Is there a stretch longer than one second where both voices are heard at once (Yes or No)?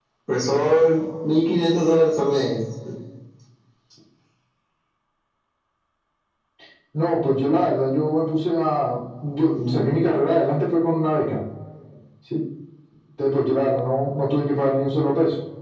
No